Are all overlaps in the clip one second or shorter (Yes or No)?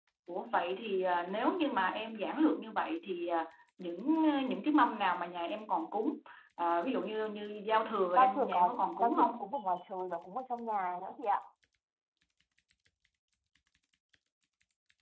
No